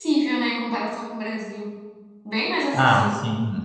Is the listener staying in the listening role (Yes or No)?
No